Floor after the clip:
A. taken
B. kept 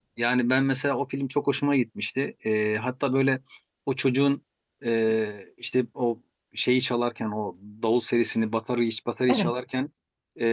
B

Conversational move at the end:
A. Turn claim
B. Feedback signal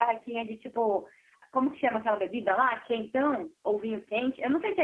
A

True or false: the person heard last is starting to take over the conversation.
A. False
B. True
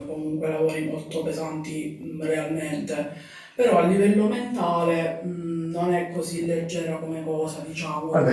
B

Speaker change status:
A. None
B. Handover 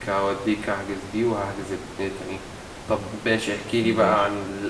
A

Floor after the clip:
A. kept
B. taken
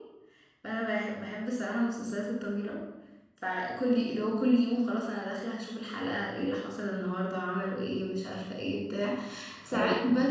A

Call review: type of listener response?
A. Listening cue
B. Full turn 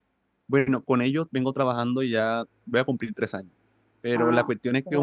A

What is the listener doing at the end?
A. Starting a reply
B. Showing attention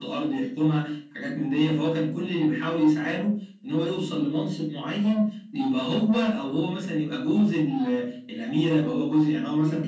A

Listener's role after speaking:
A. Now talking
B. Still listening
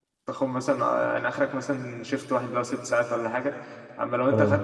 B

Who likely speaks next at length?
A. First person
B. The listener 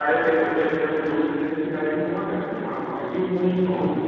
A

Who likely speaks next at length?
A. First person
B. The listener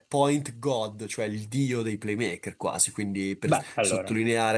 A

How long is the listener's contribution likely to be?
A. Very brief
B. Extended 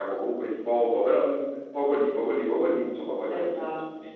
B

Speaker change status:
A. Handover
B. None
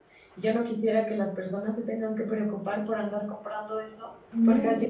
B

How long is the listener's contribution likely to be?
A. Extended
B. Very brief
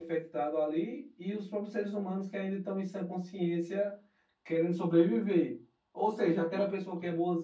B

